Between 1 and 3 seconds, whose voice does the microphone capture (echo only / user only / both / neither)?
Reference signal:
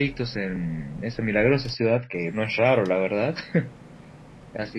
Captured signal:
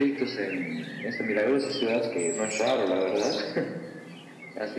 echo only